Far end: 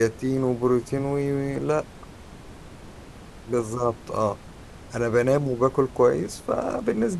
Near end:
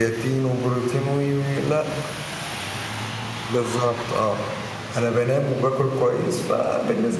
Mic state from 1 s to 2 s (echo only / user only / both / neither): echo only